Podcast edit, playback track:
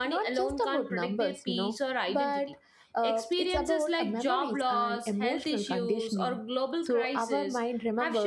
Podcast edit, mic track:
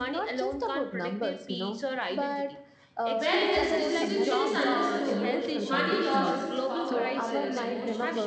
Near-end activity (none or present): present